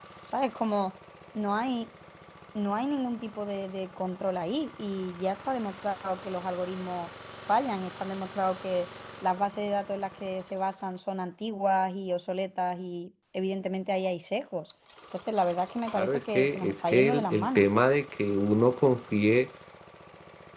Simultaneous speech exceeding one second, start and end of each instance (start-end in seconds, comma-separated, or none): 15.9-17.7